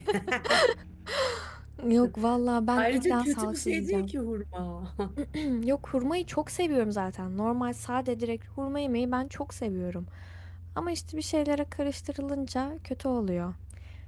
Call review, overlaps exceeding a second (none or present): present